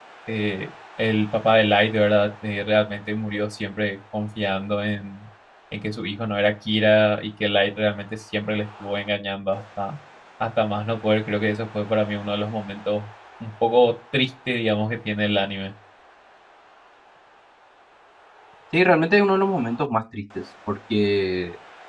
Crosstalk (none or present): none